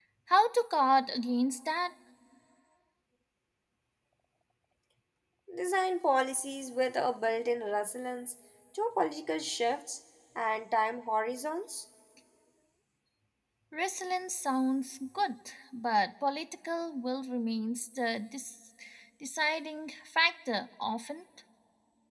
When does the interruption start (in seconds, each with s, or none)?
none